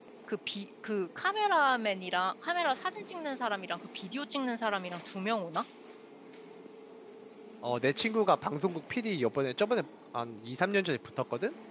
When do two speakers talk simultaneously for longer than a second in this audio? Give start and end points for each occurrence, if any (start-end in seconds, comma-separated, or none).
none